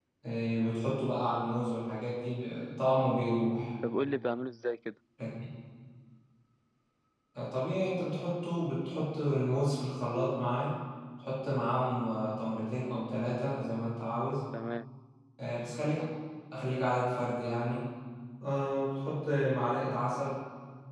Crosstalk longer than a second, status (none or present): none